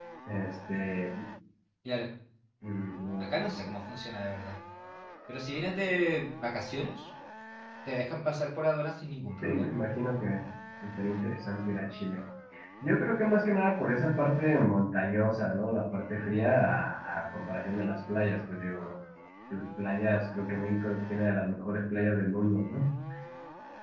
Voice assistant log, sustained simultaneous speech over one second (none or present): none